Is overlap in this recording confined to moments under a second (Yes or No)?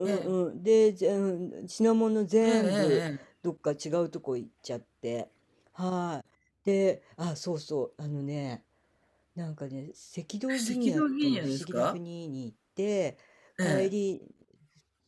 No